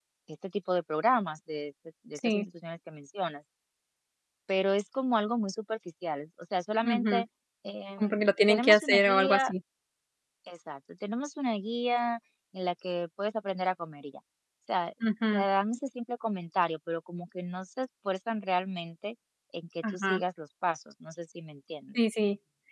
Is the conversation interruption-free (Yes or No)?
No